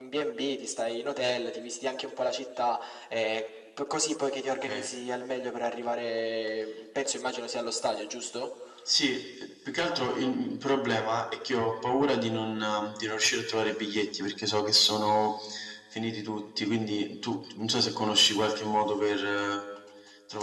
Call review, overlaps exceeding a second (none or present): none